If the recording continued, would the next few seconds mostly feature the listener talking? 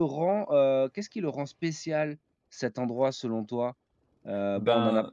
No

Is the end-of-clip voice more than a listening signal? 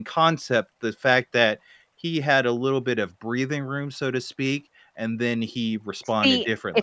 Yes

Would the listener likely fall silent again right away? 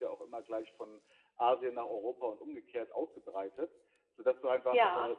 Yes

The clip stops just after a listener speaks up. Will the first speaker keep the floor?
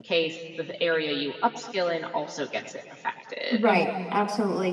No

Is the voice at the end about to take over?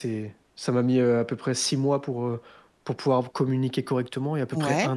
No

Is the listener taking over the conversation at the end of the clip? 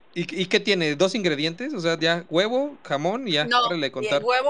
Yes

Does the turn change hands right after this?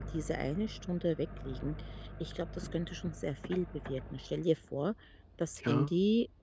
No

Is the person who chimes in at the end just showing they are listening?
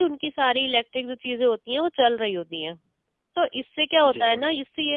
Yes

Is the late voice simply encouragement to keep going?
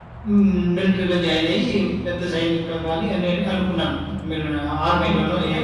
No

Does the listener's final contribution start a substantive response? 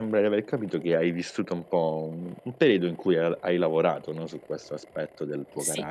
No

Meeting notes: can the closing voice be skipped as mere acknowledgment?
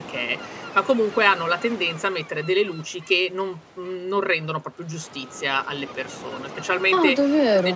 Yes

